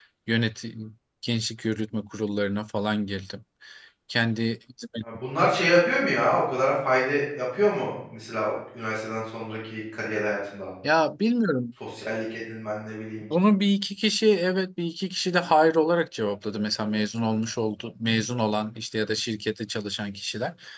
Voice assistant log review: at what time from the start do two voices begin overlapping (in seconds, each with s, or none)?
none